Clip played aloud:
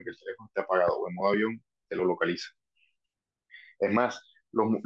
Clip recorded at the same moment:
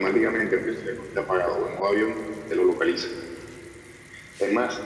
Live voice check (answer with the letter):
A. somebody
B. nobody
B